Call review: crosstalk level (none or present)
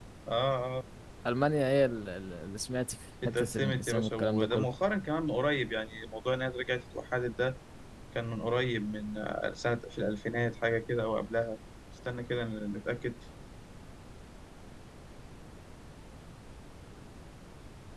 present